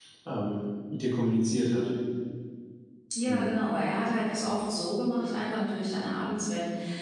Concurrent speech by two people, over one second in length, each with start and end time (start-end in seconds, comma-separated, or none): none